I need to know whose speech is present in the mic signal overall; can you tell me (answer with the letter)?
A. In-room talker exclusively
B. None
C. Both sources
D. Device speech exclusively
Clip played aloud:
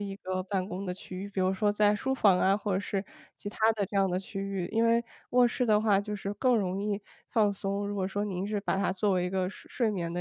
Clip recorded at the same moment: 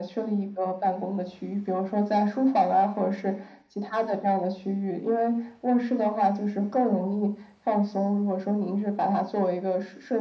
D